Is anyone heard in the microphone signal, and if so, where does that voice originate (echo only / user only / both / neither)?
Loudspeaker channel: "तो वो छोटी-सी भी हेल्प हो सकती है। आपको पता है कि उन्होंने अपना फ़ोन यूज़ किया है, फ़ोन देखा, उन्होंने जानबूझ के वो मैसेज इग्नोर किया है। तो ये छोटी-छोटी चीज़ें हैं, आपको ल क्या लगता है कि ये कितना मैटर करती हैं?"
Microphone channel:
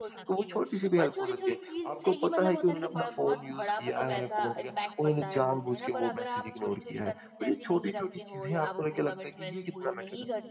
both